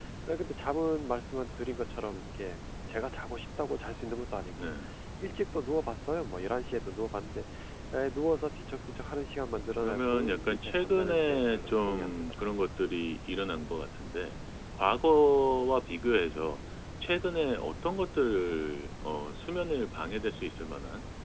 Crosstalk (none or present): present